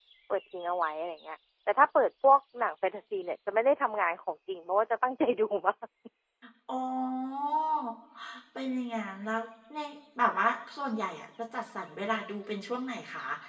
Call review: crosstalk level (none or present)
none